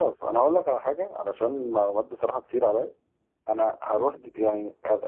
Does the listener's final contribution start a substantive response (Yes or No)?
No